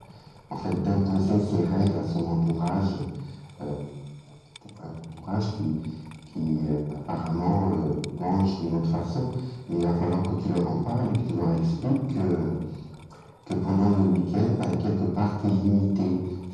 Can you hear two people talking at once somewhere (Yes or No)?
No